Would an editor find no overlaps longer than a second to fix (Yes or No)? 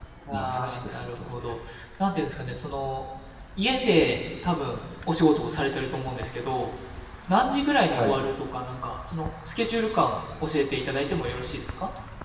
No